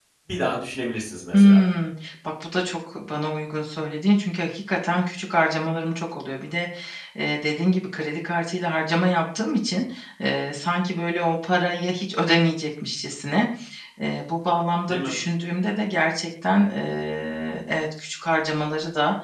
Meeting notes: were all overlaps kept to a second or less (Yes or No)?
Yes